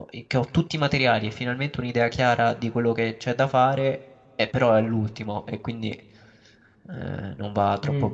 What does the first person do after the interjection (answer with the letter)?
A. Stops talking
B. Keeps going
A